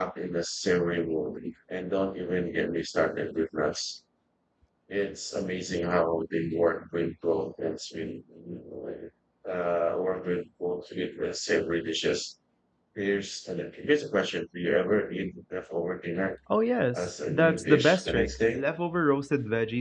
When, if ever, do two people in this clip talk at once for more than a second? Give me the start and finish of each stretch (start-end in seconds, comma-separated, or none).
16.9-18.6